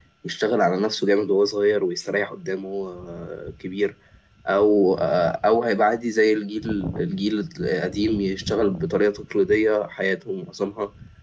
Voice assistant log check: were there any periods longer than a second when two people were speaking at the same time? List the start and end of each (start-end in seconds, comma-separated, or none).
none